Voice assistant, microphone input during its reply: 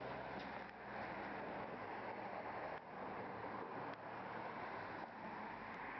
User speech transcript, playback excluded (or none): none